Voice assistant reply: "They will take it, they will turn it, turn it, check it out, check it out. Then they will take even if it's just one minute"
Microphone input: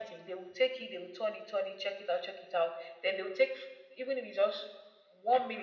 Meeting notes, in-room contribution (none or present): none